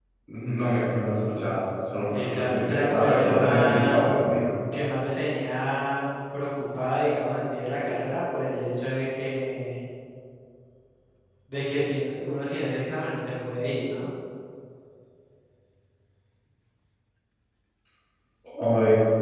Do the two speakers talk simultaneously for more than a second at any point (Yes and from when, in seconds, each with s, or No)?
Yes, from 2.1 s